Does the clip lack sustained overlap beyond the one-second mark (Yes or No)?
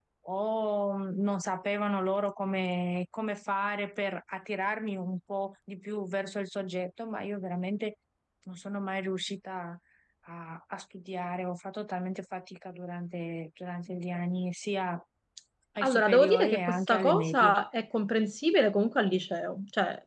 No